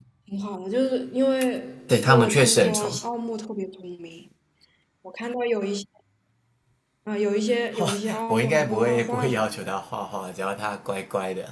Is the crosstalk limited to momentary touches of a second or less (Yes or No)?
No